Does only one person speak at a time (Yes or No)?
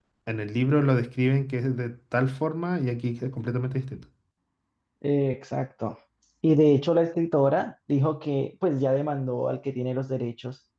Yes